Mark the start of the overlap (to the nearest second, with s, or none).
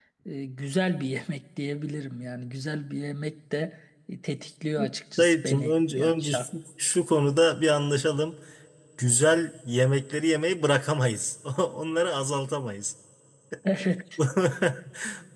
5 s